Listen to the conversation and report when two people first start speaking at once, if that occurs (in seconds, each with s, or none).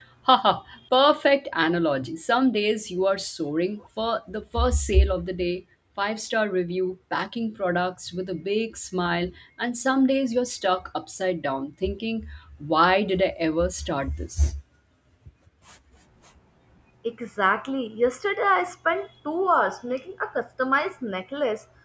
none